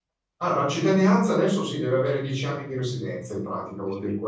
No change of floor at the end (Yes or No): Yes